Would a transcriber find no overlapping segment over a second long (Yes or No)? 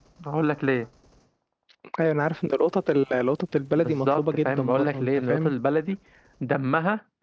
No